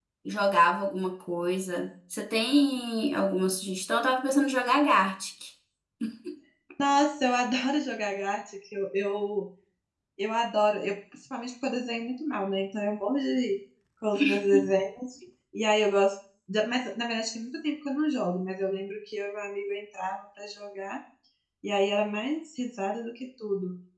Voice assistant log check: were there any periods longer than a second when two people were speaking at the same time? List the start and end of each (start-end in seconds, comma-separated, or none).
none